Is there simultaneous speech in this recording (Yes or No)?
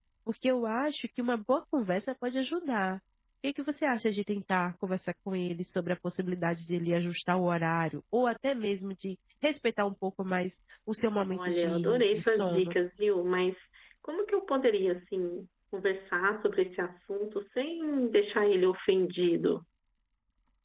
Yes